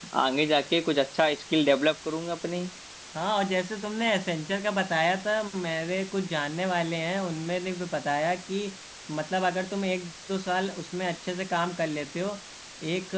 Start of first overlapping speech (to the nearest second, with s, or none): none